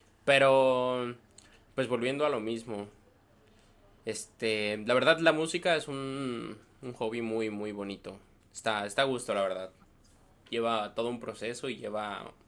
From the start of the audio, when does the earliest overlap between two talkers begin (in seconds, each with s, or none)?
none